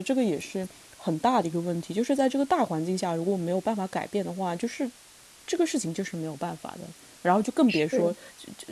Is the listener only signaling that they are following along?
Yes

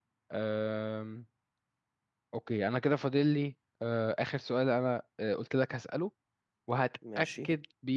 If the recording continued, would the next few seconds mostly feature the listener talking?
No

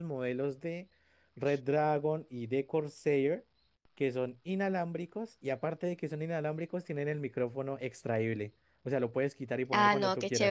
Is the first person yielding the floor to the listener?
Yes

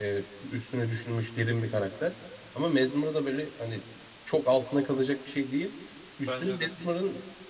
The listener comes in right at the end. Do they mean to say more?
No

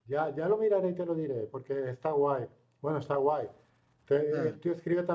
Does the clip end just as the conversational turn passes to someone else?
No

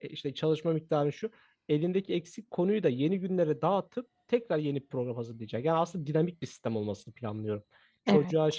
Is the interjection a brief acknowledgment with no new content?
Yes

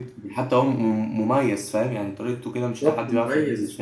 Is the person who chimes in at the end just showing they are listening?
No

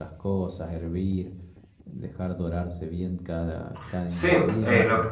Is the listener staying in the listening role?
No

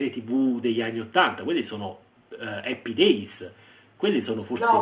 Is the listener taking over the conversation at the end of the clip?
Yes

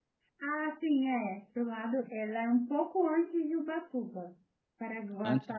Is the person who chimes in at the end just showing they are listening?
Yes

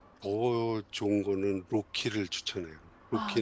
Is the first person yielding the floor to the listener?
Yes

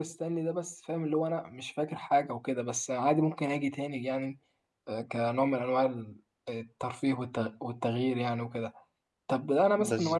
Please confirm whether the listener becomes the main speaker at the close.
No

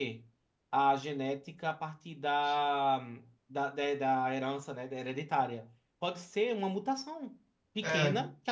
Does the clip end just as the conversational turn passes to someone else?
No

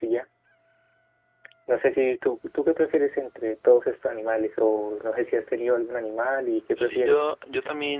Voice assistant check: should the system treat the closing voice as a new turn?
Yes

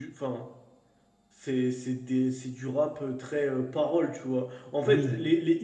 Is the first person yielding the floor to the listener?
No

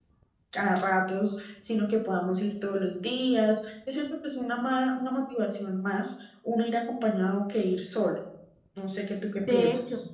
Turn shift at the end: Yes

